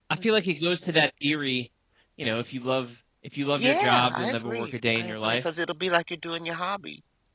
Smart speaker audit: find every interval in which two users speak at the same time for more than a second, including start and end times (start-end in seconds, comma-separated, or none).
3.6-5.4